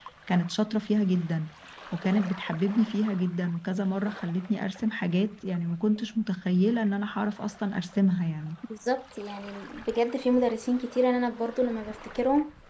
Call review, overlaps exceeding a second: none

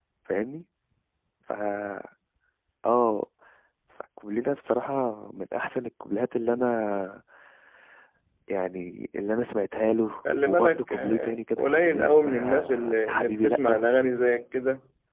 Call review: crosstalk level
present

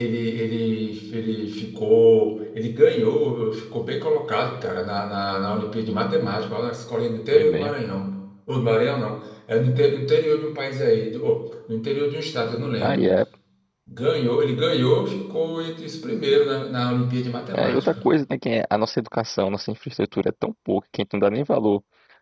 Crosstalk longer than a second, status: none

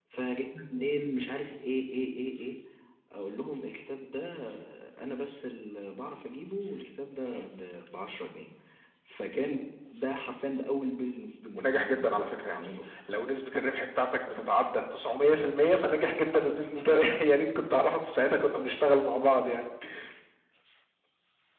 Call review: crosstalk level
present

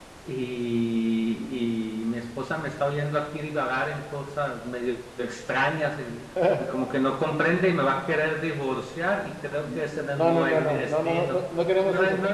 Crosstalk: present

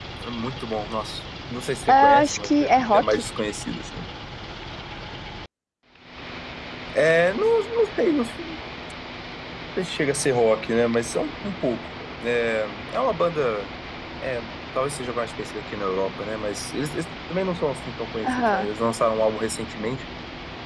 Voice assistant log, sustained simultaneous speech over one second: present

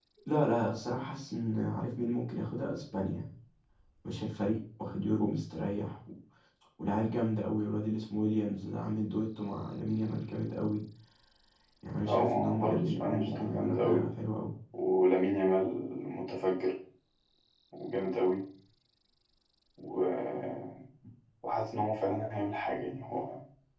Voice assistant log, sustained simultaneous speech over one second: present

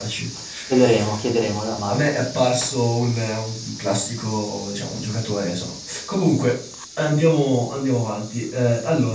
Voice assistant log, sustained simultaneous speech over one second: none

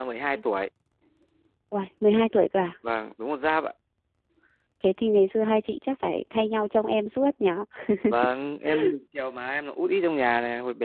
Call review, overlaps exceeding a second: none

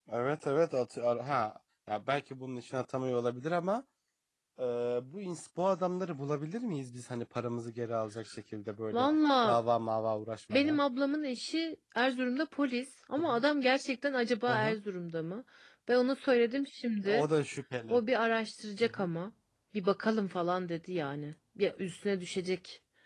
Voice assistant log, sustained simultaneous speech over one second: none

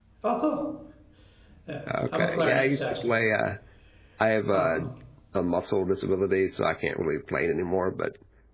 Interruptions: present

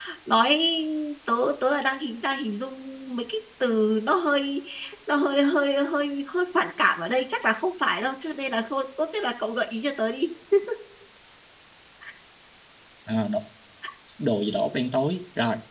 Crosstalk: none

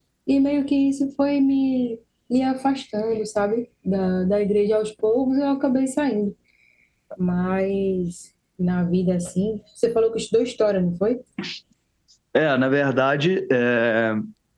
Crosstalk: none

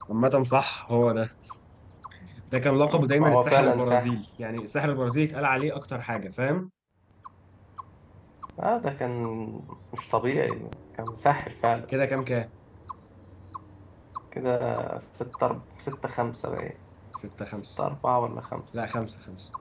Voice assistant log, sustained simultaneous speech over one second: present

